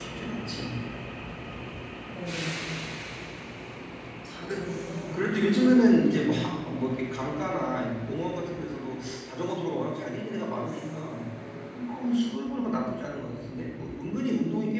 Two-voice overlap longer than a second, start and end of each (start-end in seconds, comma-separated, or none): 5.1-6.5